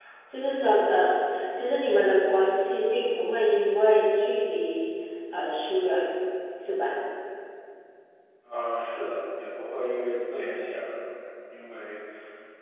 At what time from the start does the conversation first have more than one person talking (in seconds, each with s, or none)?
none